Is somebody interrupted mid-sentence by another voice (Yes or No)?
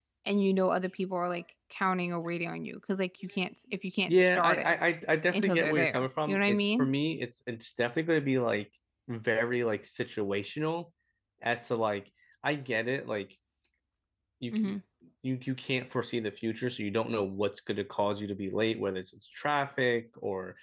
Yes